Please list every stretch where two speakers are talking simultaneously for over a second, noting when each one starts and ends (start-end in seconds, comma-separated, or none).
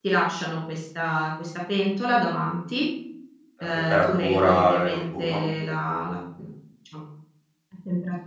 3.7-5.4